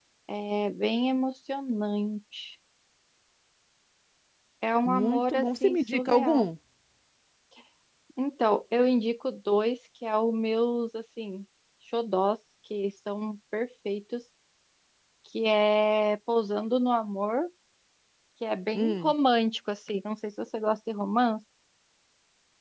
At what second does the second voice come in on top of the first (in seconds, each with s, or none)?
4.8 s